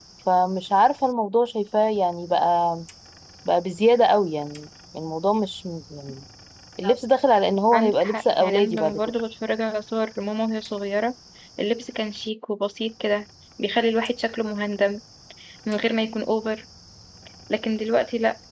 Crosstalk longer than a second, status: present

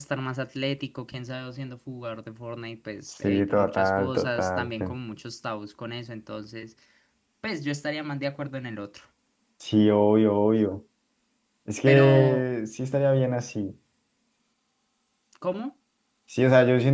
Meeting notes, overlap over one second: present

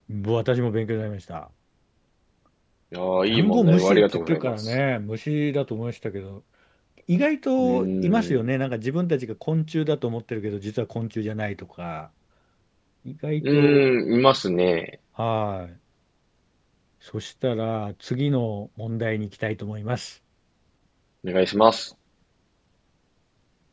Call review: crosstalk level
present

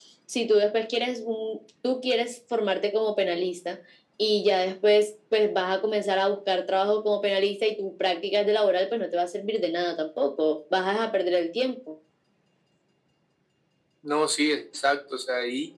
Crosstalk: none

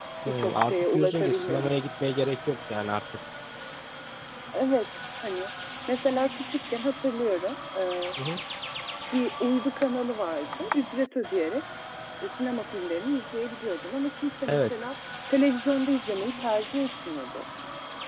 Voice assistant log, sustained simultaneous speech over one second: present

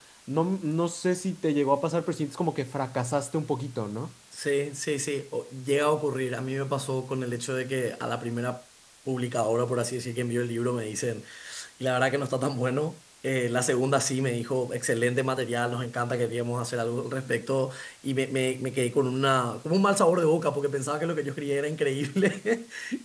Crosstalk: none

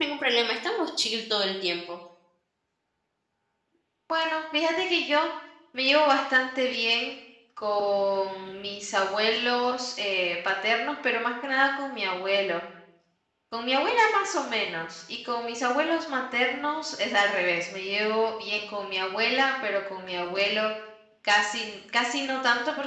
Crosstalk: none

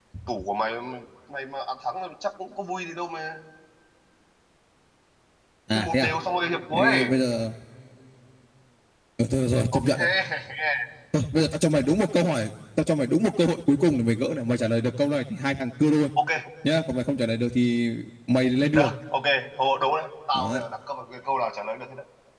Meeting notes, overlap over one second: none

